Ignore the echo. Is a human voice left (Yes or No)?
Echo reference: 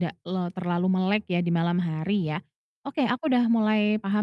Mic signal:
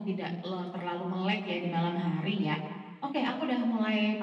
No